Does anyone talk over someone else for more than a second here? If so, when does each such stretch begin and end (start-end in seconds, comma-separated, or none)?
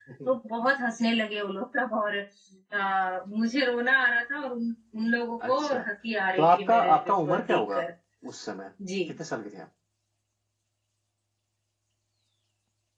6.4-7.8